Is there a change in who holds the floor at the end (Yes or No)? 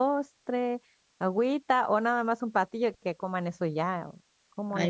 Yes